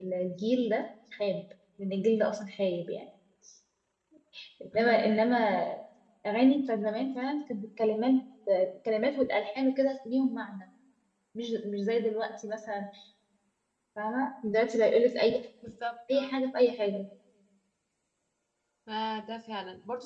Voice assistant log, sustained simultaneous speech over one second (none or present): none